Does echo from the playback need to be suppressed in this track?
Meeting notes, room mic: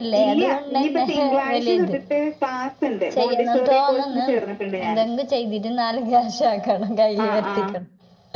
Yes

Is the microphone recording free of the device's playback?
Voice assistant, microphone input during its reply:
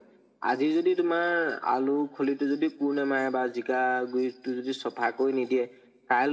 No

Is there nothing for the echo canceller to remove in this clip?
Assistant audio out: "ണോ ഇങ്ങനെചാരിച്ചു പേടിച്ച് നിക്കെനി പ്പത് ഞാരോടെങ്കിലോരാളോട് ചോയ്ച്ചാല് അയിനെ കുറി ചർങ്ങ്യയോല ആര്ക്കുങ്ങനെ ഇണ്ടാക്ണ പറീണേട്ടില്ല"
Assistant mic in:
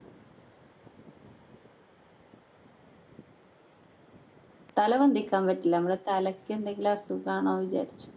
Yes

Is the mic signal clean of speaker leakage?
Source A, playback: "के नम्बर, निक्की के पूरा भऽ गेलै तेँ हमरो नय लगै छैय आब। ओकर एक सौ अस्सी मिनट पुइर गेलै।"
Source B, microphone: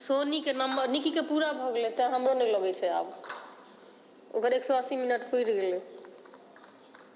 No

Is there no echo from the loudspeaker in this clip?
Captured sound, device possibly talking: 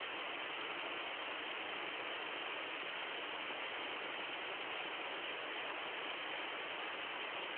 Yes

